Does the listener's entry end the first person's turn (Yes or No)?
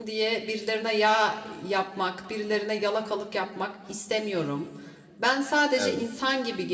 No